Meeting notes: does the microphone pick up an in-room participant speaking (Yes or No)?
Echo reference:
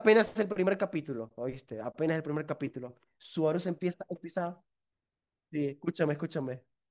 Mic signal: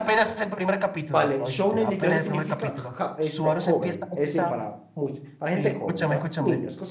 Yes